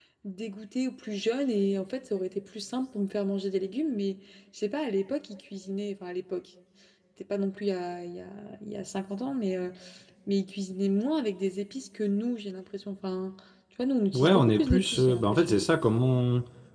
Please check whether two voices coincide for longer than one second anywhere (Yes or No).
Yes